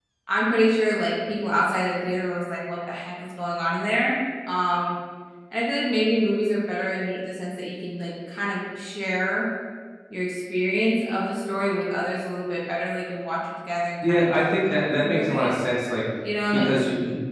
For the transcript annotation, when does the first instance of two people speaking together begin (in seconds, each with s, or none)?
14.1 s